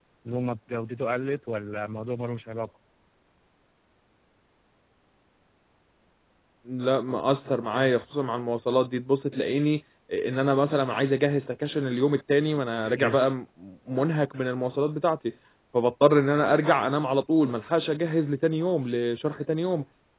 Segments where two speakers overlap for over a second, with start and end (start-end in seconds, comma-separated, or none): none